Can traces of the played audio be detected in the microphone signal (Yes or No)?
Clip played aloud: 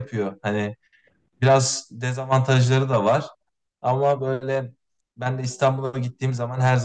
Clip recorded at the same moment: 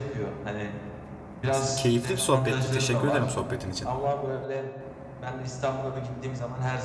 Yes